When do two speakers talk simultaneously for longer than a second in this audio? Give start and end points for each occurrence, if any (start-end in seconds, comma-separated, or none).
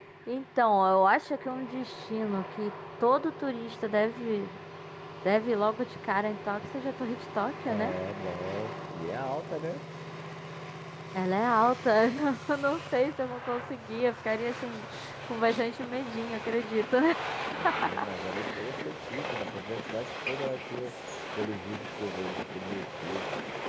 none